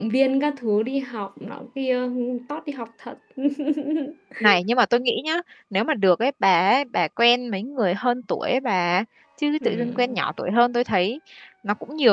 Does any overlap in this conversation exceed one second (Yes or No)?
No